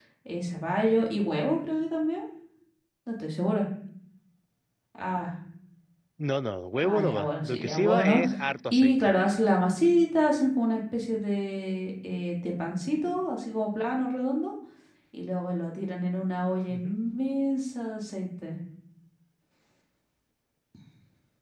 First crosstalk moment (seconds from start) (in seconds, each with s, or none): 6.8 s